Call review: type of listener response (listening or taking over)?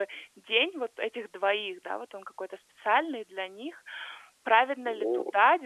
listening